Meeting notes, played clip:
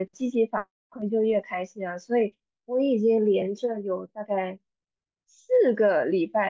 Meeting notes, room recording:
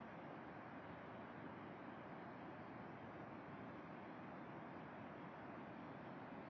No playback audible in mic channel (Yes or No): Yes